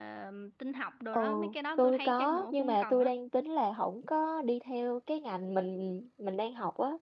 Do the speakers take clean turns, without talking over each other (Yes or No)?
No